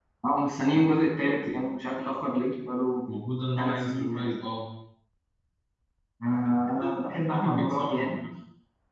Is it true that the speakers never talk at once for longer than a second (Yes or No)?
No